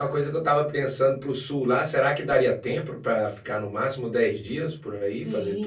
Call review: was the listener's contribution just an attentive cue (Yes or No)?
No